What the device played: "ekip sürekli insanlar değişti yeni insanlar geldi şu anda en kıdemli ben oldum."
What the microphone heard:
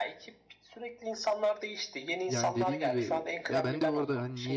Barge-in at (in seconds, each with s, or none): 2.3 s